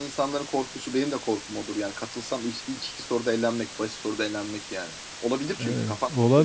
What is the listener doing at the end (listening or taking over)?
taking over